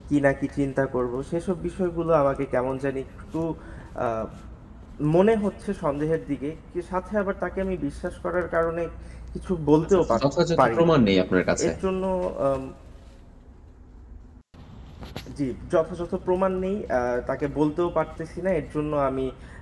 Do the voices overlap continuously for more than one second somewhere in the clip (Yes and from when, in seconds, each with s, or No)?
No